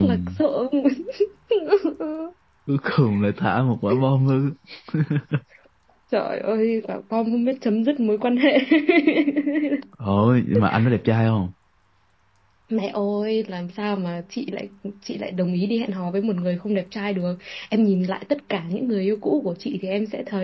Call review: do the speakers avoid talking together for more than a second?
Yes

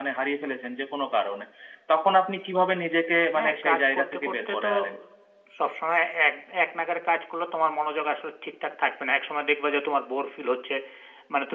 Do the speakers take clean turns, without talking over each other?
No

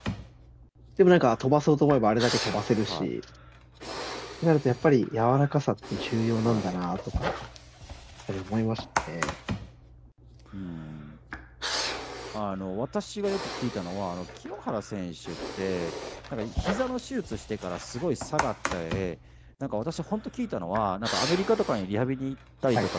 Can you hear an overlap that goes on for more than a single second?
No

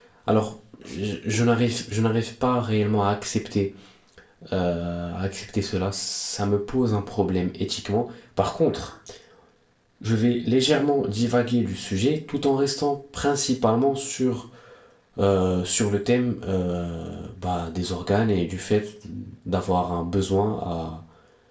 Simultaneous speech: No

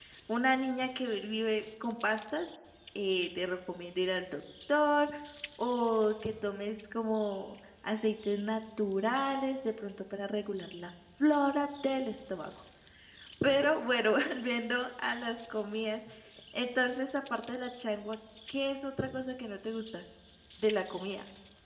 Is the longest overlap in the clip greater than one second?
No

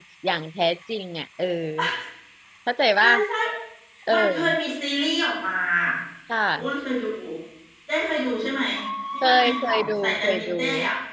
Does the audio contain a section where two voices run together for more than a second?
Yes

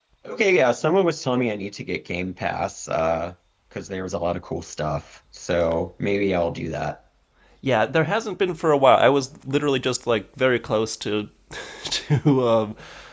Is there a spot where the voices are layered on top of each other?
No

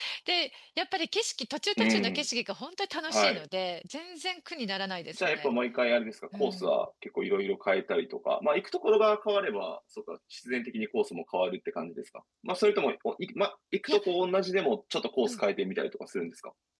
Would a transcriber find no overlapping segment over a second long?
Yes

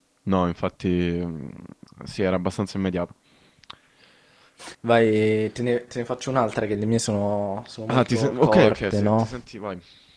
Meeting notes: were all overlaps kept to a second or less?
No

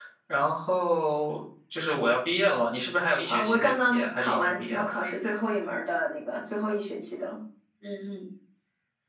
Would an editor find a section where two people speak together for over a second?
Yes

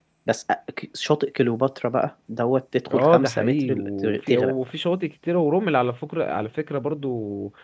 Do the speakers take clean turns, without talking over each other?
No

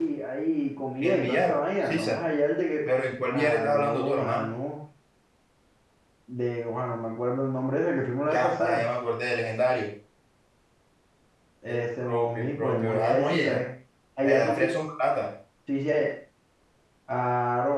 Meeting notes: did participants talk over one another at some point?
Yes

